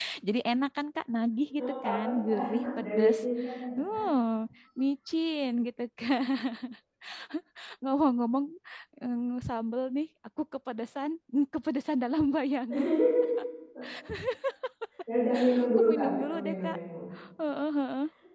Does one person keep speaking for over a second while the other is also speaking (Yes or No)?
Yes